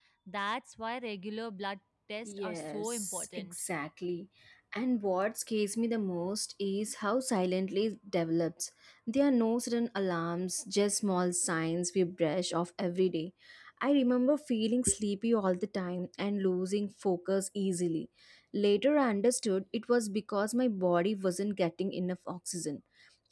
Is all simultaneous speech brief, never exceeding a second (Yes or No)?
No